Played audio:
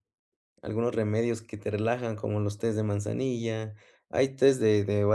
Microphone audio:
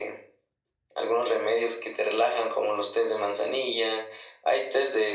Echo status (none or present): present